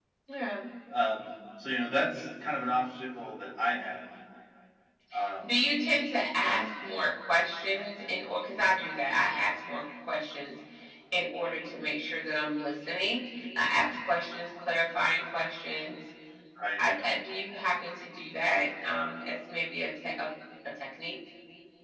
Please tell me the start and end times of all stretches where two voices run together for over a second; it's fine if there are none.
none

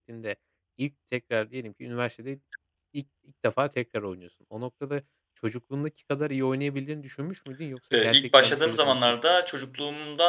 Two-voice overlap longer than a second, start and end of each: 7.9-9.4

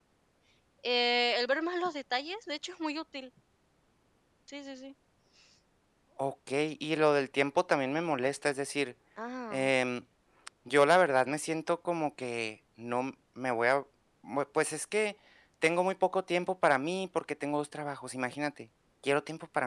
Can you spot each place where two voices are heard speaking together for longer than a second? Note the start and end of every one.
none

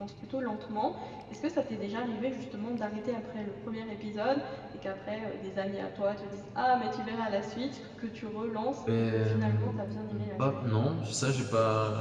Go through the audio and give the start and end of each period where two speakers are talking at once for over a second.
9.1-10.7

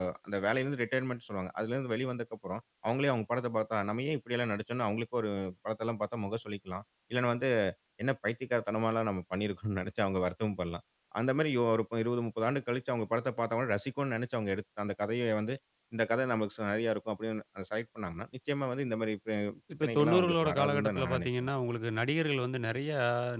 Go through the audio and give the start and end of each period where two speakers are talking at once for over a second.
19.8-21.5

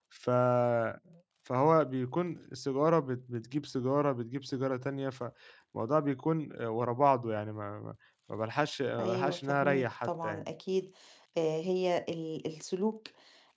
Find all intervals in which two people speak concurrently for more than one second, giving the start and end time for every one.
9.0-10.4

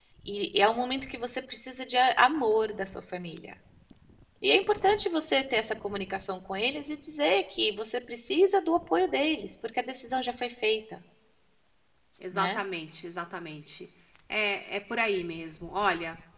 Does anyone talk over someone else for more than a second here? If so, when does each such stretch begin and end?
none

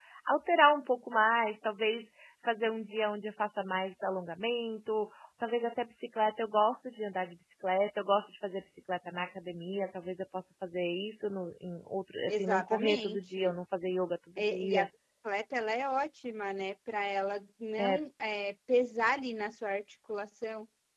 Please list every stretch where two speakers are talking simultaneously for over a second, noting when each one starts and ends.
12.3-13.5

